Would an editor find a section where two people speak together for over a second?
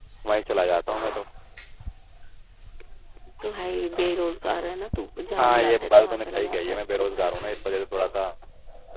Yes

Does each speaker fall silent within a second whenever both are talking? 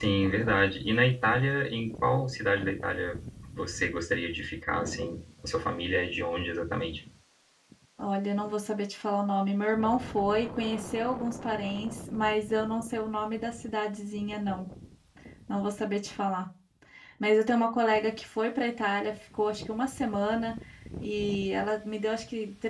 Yes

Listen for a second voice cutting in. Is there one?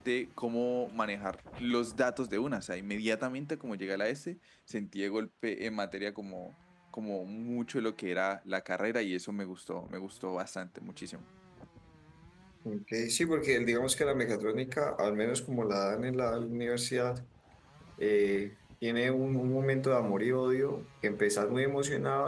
No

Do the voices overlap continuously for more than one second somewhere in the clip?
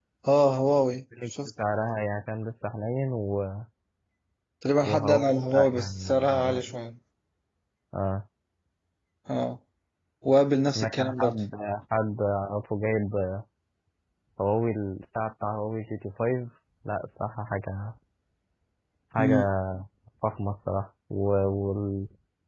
Yes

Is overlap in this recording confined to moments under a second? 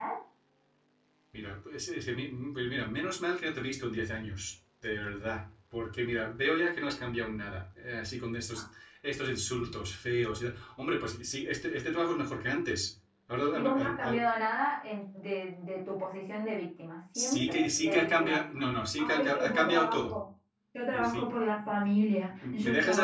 No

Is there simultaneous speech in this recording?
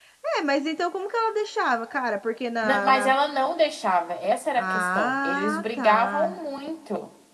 Yes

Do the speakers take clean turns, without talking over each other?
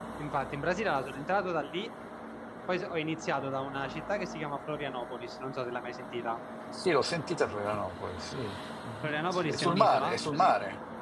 No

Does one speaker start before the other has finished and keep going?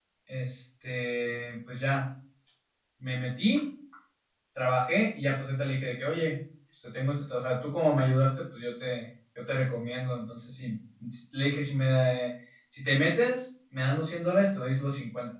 No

